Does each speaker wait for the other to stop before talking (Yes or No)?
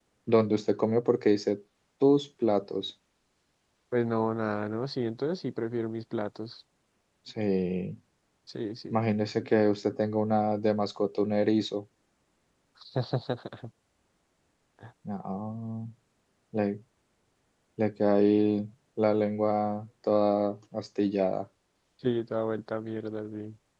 Yes